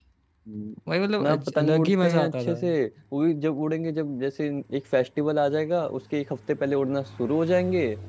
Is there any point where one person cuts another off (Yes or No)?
Yes